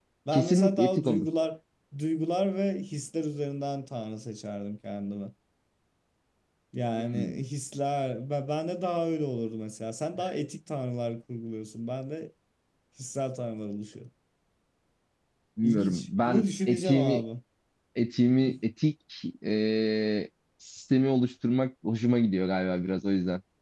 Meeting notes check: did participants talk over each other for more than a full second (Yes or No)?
Yes